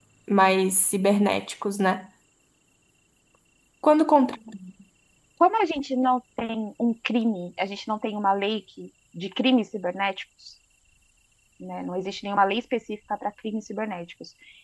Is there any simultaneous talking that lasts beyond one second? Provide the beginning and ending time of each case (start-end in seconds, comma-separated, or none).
none